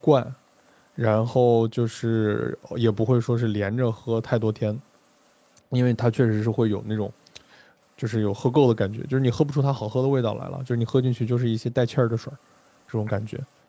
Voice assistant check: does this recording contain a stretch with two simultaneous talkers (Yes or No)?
No